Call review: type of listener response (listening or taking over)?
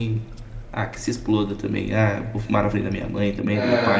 listening